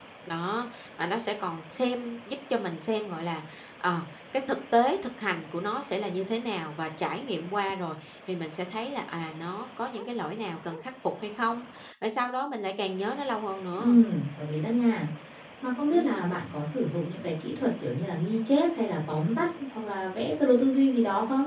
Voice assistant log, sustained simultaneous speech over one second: none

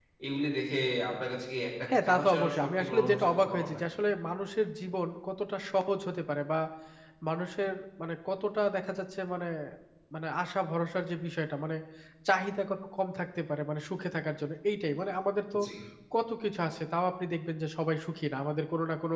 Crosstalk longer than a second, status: present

